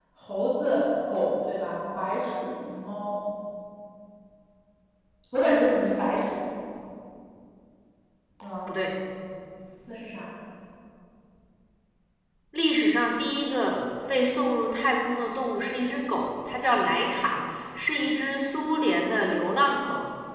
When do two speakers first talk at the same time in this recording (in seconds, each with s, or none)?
none